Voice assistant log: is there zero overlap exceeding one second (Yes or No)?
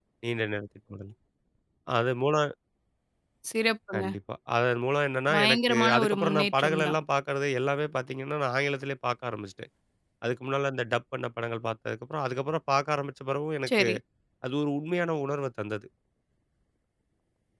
No